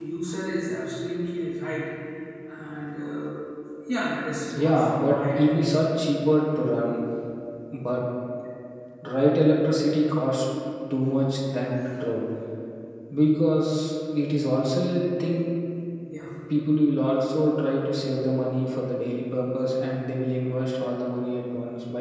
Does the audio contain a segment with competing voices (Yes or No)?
Yes